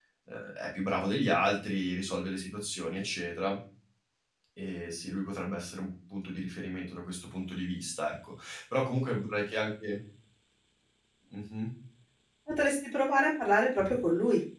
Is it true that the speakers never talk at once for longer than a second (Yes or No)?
Yes